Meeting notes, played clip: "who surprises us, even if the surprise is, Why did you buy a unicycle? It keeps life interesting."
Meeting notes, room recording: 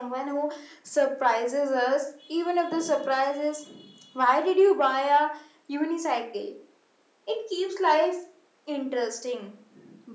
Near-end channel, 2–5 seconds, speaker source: echo only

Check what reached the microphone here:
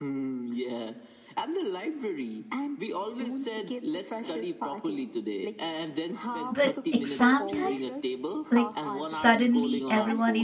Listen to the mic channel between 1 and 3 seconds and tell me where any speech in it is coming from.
echo only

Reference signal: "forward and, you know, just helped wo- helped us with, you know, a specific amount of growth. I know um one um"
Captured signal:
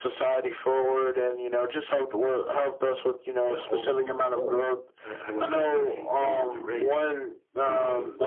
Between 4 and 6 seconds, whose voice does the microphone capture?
both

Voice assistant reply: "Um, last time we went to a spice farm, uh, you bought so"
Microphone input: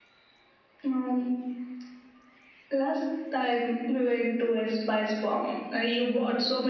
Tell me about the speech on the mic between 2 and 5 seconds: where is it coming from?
echo only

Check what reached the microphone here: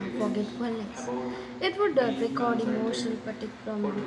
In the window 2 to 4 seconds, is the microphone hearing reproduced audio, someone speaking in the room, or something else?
both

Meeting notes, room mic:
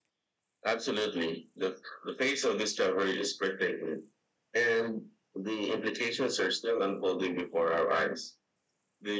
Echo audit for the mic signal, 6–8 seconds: echo only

